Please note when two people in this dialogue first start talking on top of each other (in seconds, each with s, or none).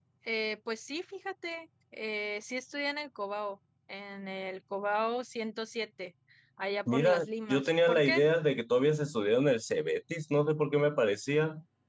6.9 s